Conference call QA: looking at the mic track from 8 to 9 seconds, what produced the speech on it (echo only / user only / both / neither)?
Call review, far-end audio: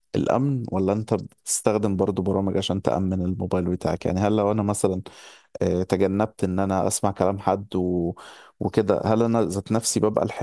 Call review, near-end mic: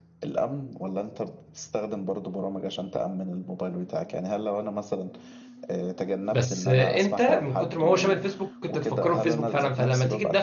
both